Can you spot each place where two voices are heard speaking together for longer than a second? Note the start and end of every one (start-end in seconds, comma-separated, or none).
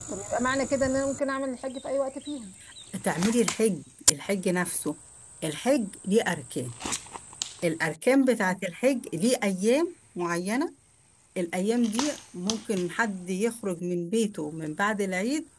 none